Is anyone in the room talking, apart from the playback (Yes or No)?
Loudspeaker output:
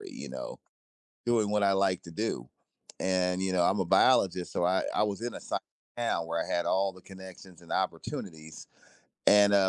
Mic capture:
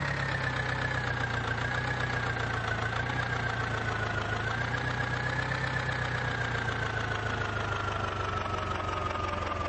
No